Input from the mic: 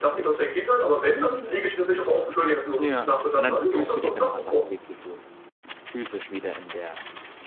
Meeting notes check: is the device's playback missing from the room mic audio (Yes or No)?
No